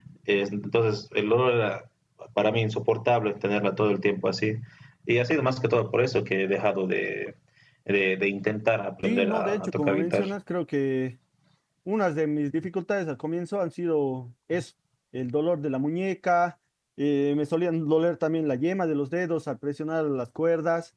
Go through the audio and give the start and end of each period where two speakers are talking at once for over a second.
9.0-10.3

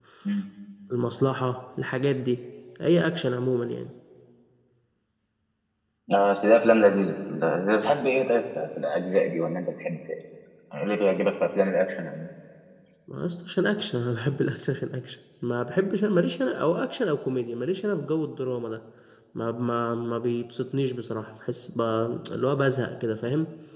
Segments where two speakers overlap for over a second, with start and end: none

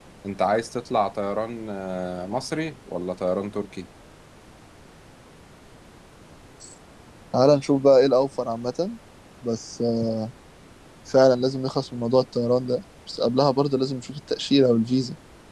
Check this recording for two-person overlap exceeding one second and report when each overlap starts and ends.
none

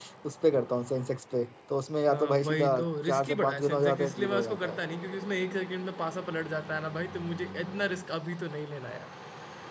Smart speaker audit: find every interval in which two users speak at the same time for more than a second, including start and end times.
2.1-4.8

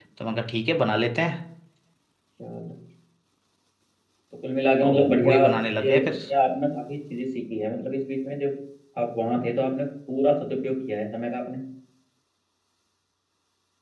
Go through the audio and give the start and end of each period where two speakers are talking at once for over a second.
4.8-6.2

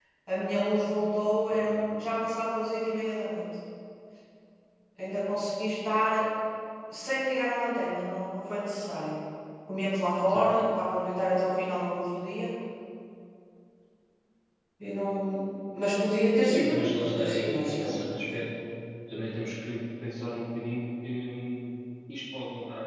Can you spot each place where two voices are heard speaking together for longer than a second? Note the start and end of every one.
16.4-18.4

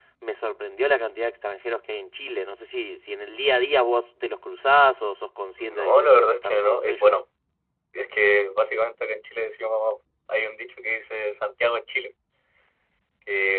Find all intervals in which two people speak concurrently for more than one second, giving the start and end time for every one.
5.6-7.1

